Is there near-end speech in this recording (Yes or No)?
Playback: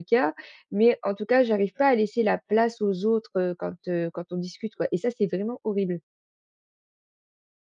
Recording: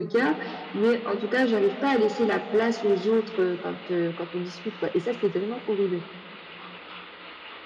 No